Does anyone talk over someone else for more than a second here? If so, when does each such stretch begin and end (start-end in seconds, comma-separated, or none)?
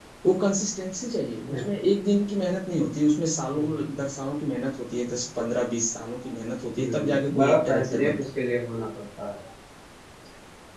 6.8-8.2